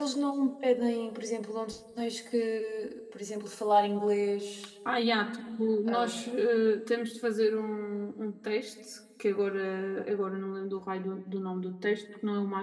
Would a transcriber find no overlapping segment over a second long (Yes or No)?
Yes